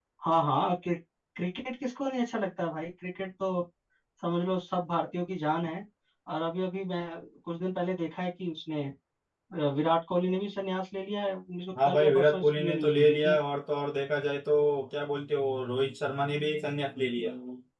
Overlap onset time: 11.8 s

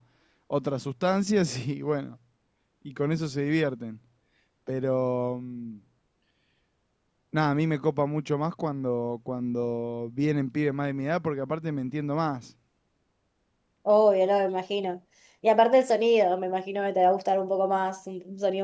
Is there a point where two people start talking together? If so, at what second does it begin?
none

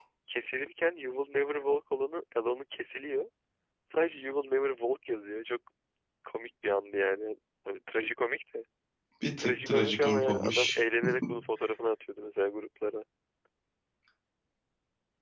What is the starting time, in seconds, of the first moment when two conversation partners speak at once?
9.4 s

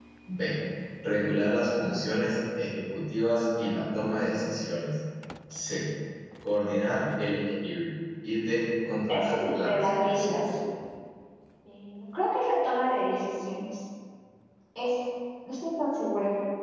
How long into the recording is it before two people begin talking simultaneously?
9.1 s

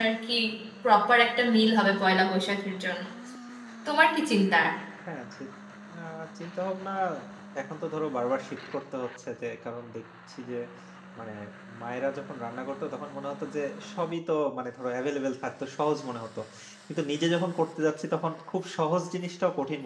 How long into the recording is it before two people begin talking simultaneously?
none

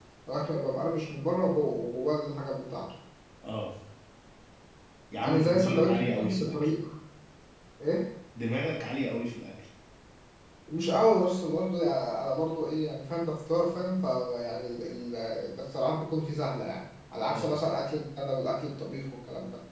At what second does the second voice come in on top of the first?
5.2 s

